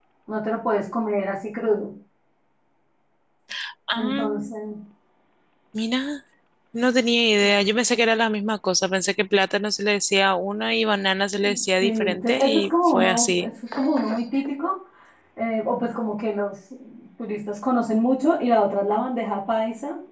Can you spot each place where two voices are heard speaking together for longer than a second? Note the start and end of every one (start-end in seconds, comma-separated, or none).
11.8-13.5